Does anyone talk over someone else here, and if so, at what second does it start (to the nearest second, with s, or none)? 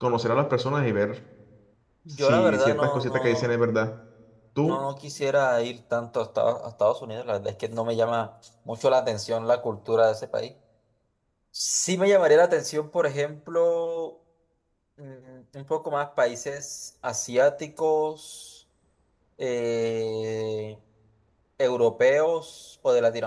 2 s